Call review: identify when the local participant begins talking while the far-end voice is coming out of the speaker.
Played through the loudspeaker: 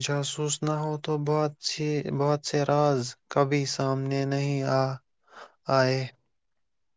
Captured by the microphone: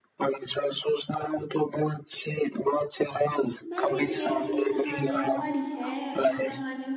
4 s

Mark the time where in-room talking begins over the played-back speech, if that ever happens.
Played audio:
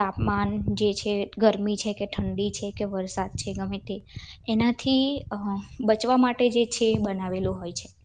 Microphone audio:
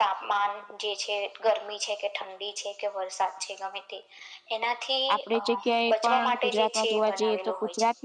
5 s

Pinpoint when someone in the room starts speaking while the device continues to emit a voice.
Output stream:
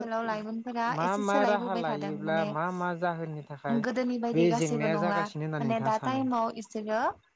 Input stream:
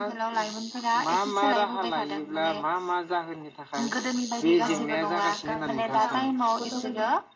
5 s

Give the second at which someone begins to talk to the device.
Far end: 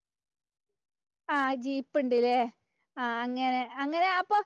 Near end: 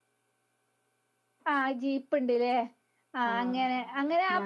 3 s

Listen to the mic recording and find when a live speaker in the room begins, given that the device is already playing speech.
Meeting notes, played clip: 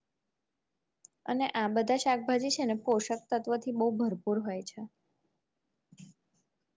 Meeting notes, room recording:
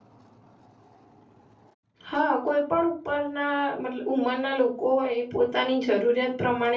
2 s

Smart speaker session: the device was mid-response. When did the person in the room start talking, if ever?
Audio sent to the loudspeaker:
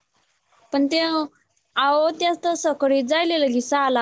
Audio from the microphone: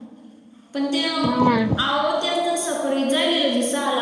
1 s

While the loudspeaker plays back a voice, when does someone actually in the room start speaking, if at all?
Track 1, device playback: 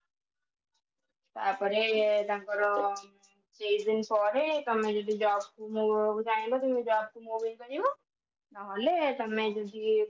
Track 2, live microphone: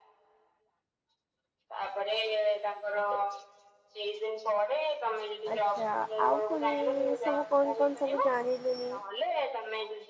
6 s

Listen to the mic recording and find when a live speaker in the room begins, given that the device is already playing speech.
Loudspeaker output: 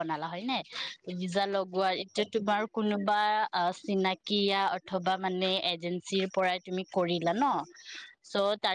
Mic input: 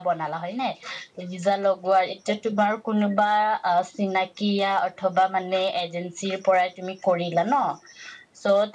none

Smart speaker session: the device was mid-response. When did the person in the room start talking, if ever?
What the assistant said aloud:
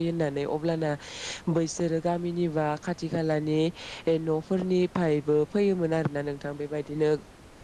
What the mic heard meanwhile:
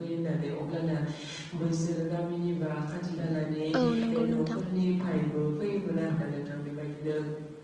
4 s

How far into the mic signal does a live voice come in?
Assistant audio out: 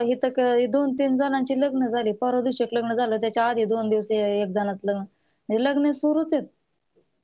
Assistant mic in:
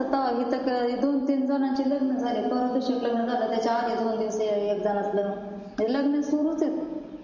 none

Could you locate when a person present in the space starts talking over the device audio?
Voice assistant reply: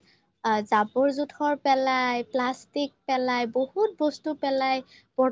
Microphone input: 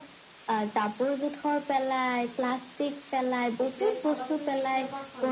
4 s

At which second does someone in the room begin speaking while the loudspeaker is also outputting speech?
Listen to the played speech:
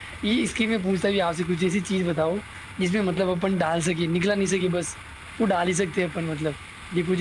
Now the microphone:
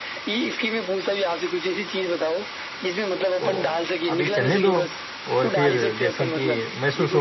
3 s

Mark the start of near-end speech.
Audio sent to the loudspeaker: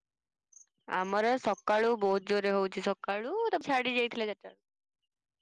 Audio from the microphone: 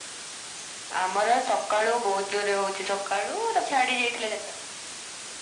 none

